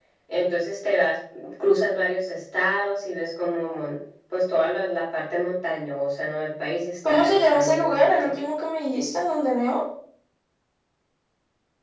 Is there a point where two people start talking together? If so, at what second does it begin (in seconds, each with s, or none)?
7.0 s